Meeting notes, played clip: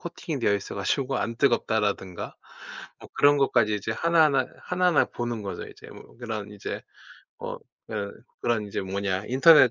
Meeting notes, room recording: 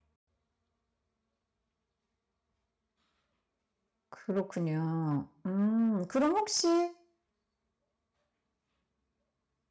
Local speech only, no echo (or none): 그렇군요. 음 그럼 혹시